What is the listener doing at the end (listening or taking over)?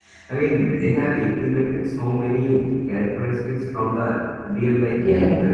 taking over